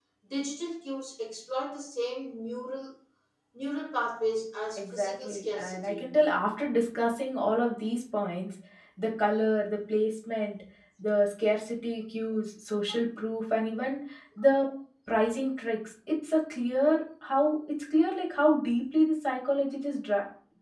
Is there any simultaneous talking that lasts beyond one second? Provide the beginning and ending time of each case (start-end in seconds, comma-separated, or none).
4.8-6.1